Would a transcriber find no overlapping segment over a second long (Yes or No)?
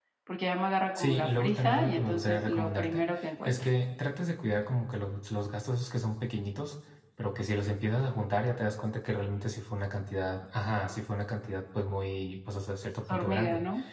No